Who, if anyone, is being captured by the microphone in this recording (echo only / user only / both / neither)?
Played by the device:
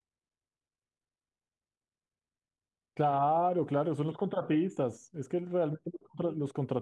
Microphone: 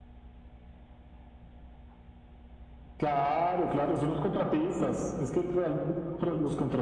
echo only